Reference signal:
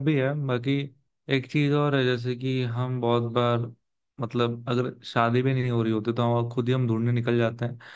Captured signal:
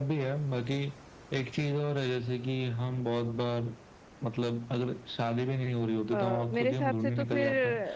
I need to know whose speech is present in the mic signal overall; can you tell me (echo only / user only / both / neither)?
both